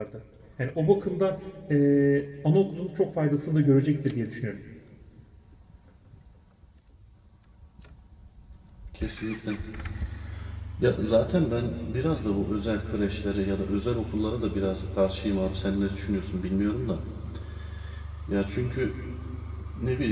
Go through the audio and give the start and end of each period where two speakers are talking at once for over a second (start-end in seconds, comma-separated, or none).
none